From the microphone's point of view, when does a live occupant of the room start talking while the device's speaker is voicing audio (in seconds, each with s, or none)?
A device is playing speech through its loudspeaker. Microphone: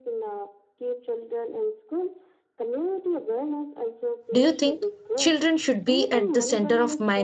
4.3 s